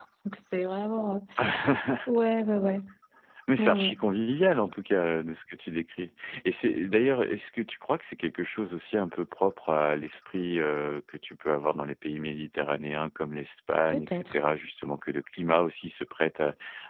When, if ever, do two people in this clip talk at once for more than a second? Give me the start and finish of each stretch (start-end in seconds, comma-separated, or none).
none